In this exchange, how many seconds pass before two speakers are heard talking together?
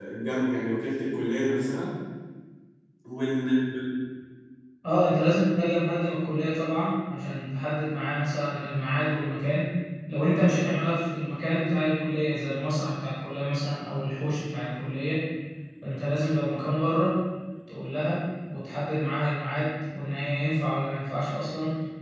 none

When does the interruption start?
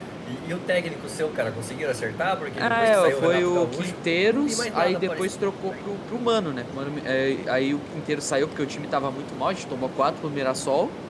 2.5 s

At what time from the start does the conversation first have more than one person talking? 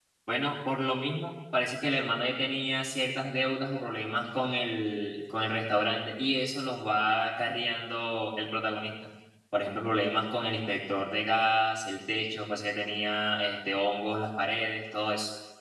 none

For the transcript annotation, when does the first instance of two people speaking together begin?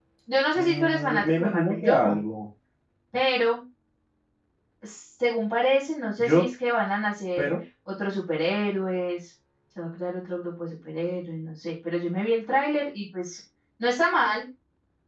0.6 s

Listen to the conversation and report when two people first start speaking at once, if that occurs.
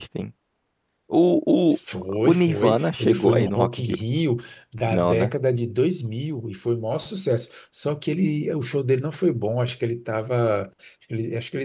2.2 s

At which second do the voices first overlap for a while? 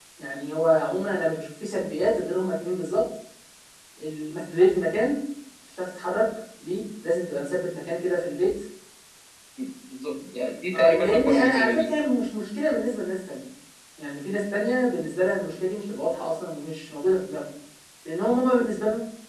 10.7 s

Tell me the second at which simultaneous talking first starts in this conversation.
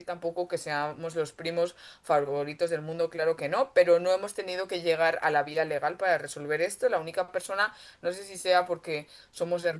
none

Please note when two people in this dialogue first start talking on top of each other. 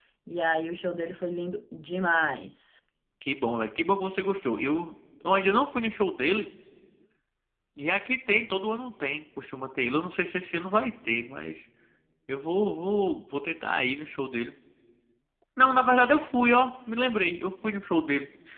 none

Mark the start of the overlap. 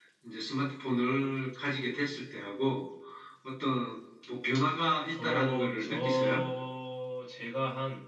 5.1 s

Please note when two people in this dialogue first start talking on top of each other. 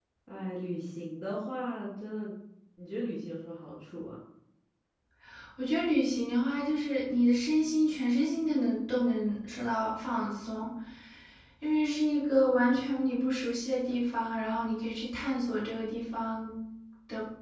none

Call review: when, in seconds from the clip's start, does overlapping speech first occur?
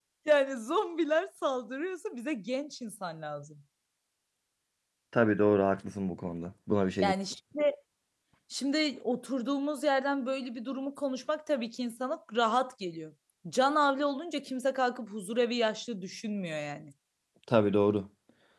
none

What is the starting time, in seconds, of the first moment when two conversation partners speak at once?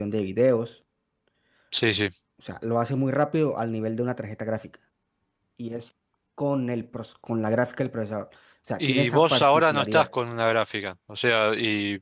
8.8 s

